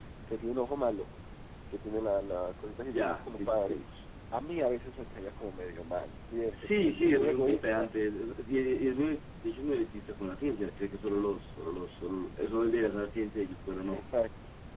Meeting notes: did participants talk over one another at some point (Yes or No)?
Yes